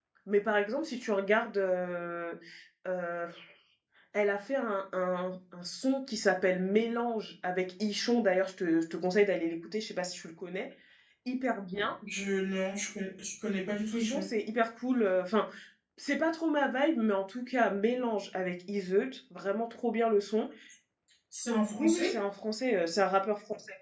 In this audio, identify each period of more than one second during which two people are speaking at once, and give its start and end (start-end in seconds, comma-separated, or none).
none